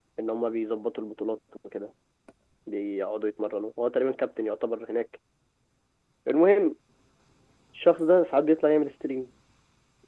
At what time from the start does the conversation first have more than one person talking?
none

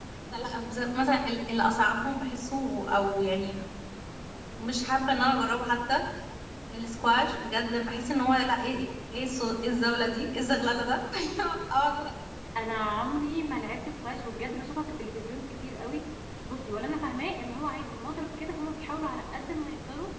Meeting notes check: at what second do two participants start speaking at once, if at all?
none

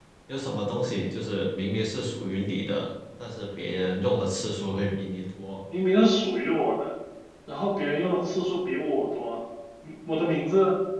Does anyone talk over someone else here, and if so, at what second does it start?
none

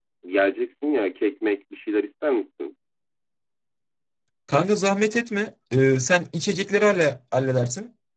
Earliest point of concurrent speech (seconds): none

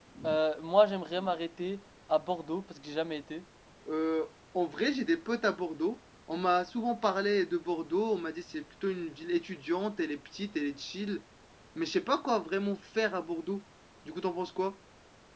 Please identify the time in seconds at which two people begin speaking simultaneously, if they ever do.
none

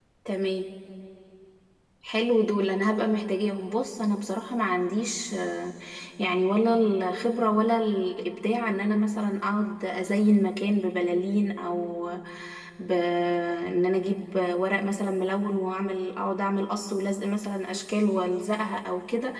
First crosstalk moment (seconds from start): none

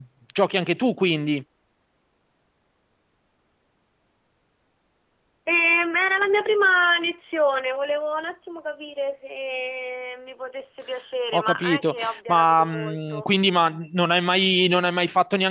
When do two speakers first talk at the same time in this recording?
11.3 s

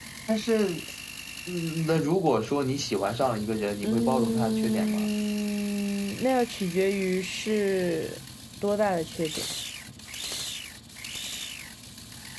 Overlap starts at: 3.8 s

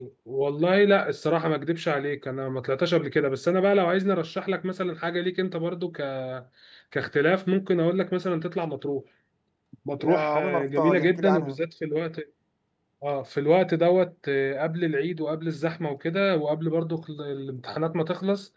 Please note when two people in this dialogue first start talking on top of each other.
10.0 s

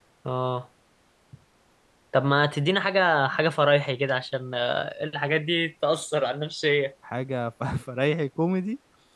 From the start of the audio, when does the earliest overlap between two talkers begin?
none

